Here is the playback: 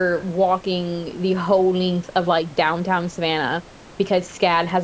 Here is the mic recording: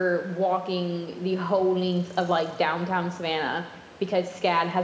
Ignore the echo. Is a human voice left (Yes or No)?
No